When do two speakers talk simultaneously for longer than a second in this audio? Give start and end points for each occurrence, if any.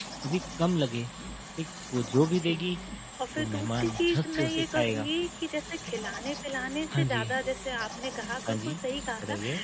3.4-5.1

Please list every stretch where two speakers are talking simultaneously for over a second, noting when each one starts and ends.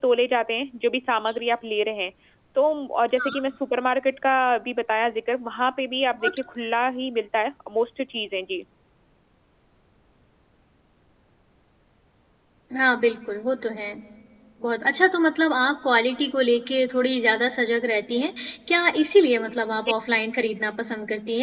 none

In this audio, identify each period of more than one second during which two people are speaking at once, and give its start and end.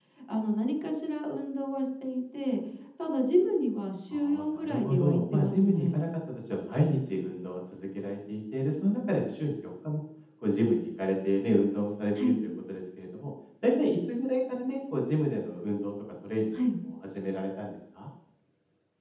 4.1-6.0

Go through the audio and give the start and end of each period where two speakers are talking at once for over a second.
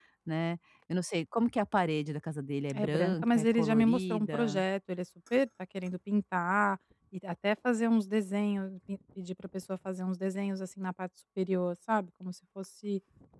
2.7-4.6

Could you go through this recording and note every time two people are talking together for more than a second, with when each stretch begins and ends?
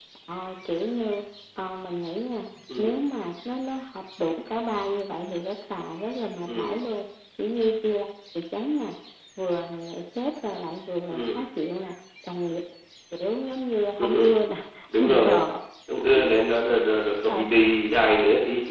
none

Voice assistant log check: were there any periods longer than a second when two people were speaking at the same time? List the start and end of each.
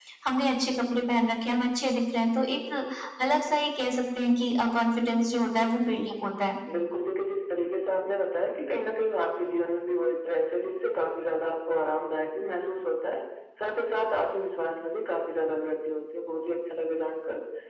none

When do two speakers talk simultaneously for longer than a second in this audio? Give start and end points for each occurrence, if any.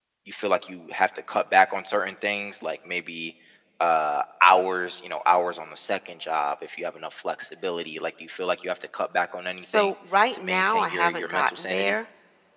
10.3-11.9

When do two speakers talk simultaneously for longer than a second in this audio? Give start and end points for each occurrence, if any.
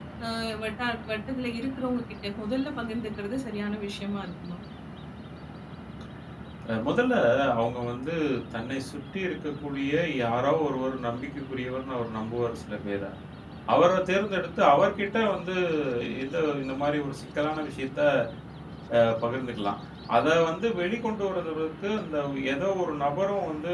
none

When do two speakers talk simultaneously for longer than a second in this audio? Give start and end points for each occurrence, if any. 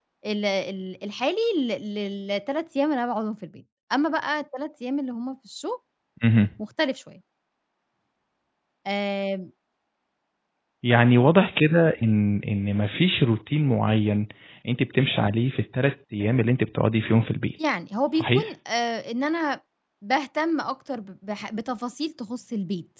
none

